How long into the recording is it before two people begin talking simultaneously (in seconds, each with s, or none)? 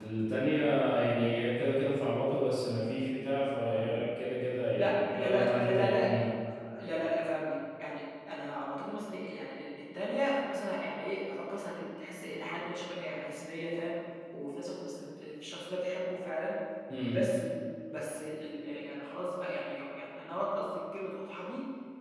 4.8 s